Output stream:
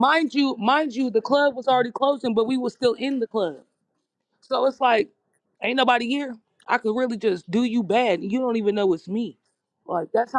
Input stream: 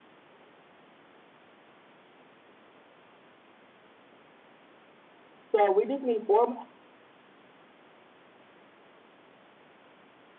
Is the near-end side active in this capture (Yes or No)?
Yes